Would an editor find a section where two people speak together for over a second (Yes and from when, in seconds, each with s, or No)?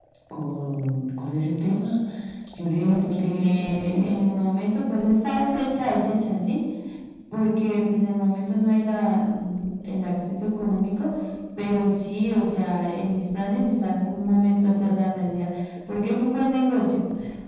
Yes, from 2.8 s